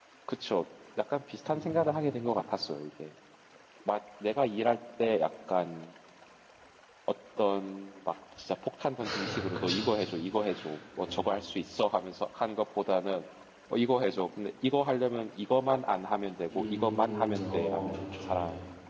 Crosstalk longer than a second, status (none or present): present